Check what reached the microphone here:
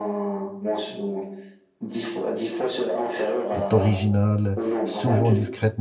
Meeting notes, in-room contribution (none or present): present